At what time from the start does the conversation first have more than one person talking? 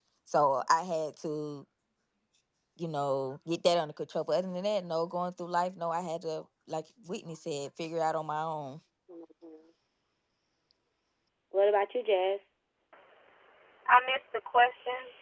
none

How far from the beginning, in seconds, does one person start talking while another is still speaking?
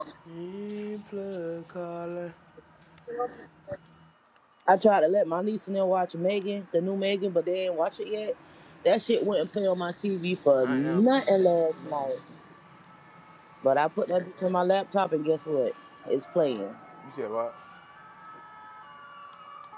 11 s

